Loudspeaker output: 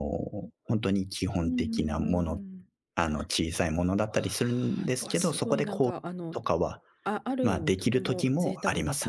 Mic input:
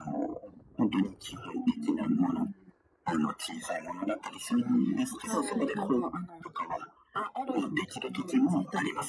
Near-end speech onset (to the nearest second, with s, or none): 5 s